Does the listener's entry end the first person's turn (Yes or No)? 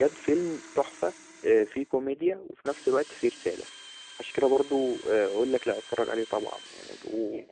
Yes